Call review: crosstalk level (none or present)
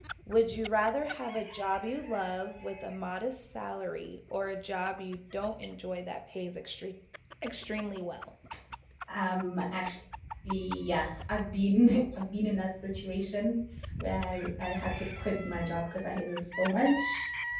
none